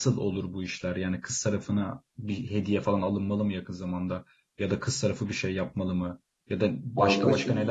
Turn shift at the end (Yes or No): No